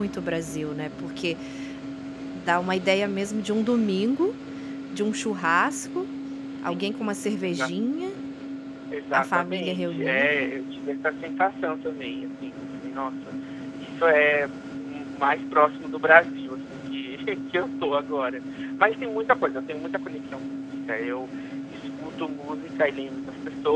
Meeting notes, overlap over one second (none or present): present